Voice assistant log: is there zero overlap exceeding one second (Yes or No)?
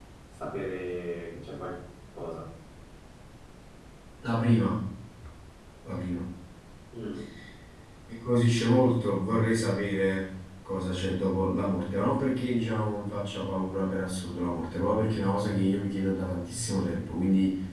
Yes